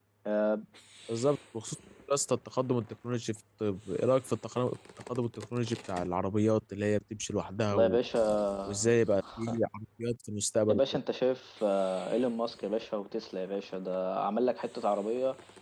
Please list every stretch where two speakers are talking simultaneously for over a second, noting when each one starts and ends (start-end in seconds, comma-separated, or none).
none